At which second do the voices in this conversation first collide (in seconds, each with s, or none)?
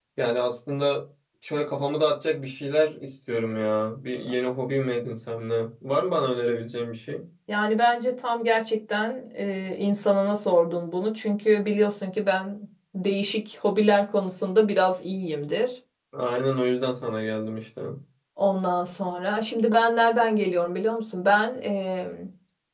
none